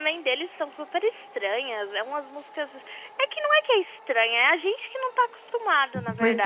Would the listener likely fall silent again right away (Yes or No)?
No